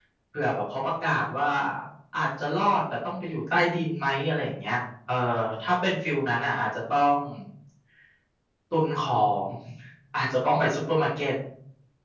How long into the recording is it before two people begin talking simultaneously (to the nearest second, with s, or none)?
none